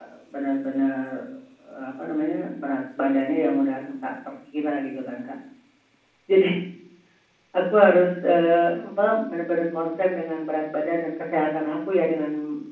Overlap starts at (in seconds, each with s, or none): none